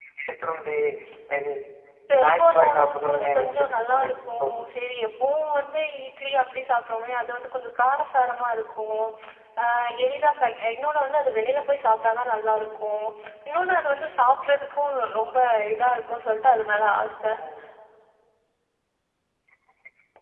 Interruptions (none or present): present